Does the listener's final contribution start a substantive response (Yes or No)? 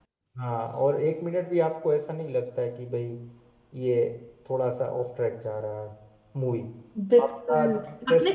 Yes